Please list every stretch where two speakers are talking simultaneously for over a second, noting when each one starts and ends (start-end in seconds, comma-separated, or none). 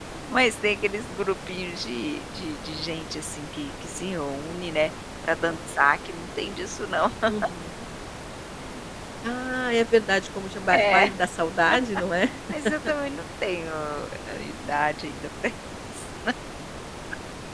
none